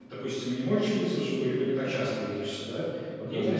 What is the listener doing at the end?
listening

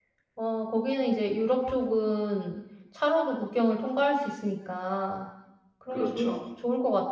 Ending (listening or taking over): listening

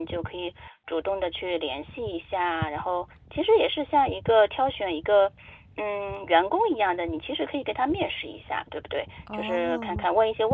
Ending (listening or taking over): listening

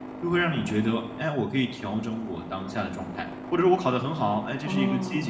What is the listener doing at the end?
listening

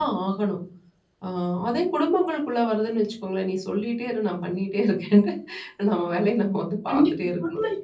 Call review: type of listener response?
taking over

